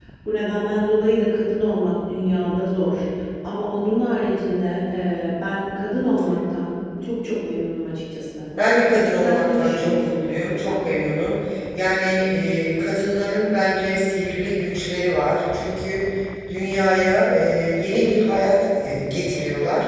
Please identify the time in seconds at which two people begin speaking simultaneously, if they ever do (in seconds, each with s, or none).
8.9 s